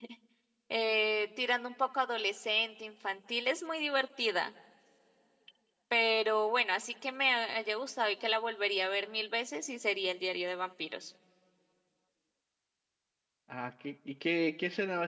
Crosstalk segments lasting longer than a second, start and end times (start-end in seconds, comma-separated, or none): none